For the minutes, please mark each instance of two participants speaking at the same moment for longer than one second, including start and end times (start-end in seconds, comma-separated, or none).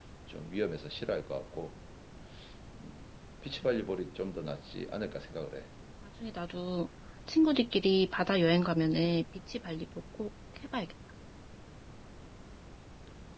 none